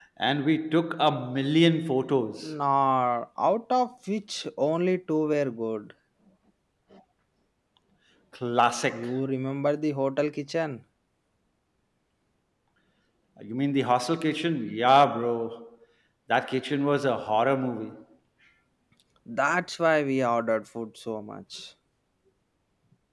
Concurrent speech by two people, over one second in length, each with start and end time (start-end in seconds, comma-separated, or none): none